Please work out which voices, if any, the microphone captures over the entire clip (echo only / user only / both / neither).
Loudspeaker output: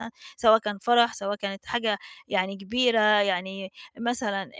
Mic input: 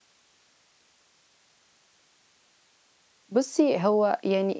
user only